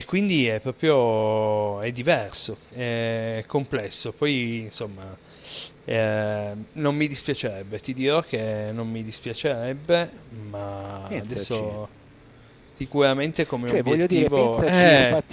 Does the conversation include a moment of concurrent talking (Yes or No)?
Yes